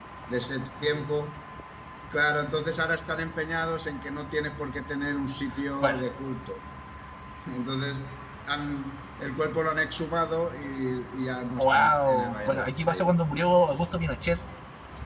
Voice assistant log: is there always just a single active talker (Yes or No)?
No